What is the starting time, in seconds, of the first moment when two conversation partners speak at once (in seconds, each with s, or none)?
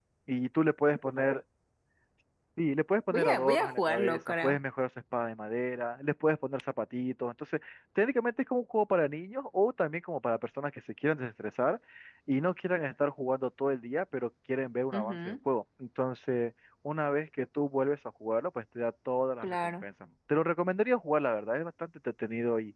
3.1 s